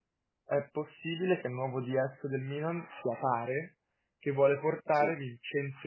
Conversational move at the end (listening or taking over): listening